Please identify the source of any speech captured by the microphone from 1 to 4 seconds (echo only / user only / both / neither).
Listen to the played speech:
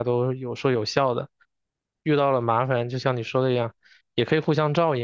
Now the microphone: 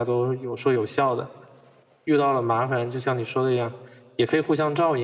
echo only